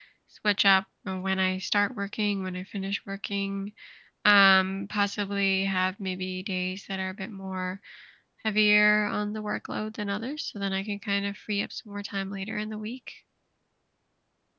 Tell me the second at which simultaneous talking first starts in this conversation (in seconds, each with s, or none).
none